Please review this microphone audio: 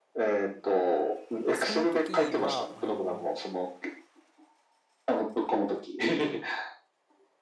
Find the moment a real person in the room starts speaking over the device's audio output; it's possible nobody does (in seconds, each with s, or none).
1.6 s